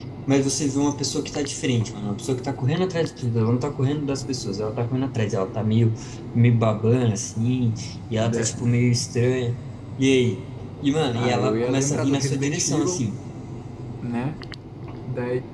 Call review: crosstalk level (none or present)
present